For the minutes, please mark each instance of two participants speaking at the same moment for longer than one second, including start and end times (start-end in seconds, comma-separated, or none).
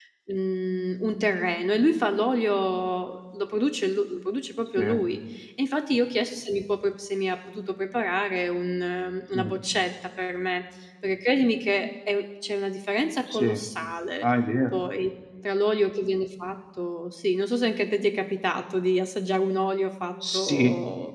none